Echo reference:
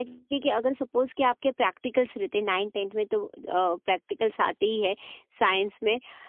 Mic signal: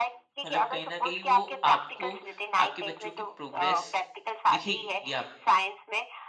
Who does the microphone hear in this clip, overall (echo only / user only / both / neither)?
both